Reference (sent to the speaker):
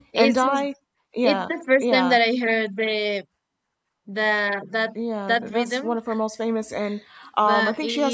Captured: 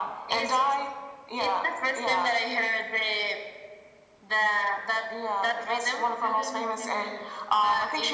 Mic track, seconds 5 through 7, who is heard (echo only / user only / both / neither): both